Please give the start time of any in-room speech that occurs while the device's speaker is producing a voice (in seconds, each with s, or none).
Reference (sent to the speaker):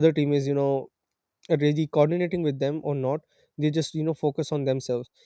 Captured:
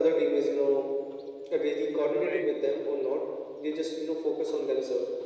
2.2 s